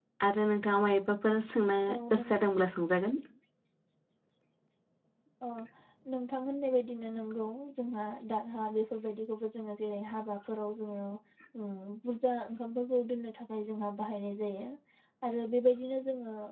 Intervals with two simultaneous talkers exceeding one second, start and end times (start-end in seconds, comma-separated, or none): none